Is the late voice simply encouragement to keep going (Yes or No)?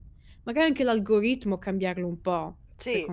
No